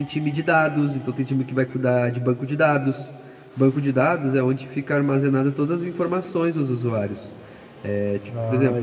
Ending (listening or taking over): taking over